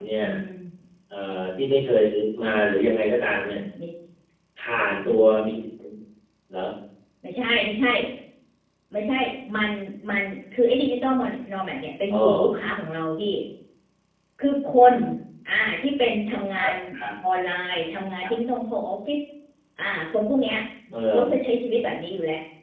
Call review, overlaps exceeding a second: none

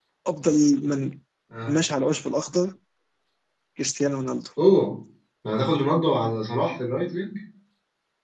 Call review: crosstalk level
none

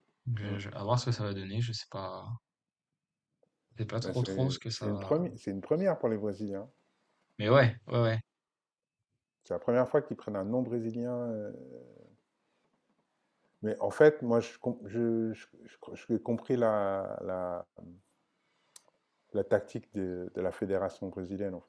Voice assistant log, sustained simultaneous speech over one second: present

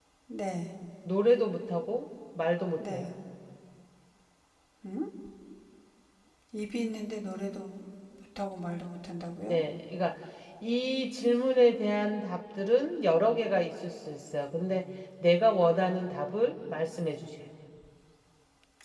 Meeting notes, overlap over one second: none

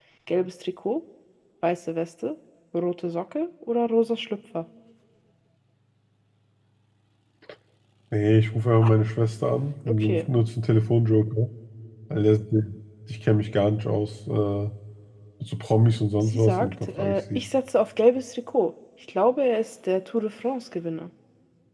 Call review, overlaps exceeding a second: present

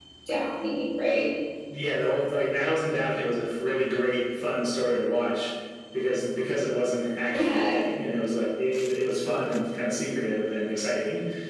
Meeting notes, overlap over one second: none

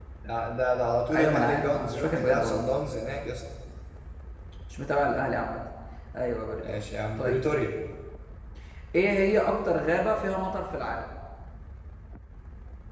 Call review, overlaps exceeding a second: present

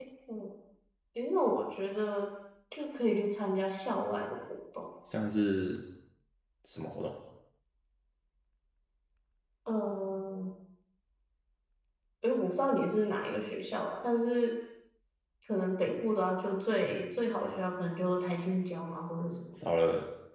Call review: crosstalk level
none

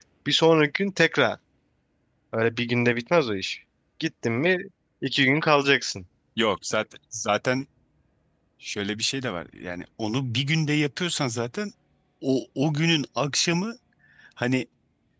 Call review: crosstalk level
none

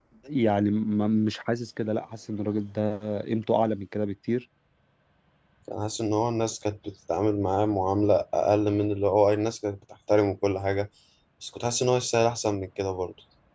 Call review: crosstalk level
none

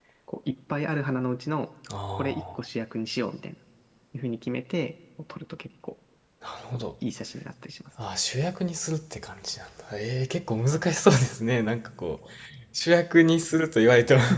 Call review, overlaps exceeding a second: none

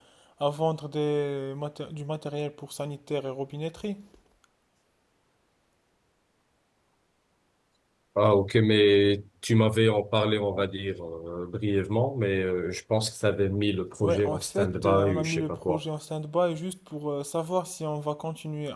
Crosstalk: present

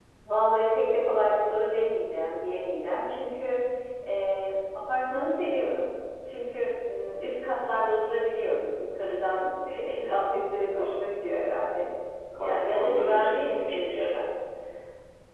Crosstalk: present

